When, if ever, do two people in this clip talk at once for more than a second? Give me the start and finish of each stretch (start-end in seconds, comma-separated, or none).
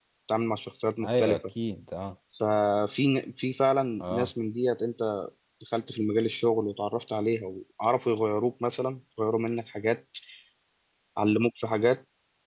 none